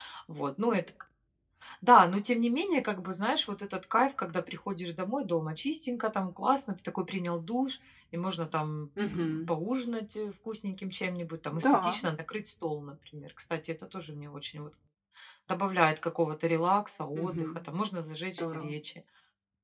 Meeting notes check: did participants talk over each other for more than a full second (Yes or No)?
No